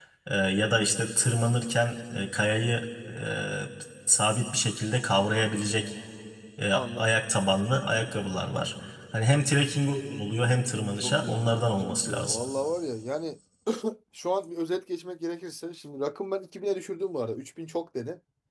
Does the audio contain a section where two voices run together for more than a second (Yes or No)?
Yes